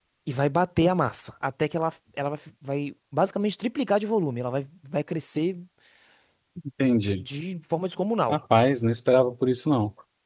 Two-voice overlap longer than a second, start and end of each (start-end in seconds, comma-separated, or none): none